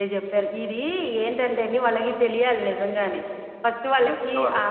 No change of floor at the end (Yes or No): Yes